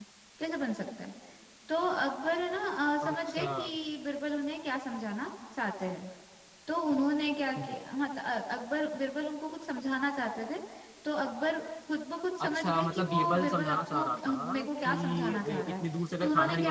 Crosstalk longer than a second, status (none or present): present